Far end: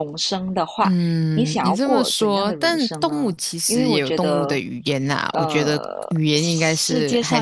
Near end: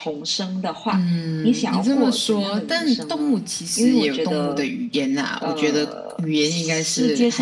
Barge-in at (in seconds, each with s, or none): none